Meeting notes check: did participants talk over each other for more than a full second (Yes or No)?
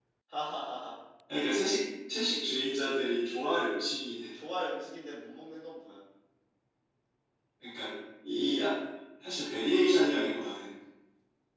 No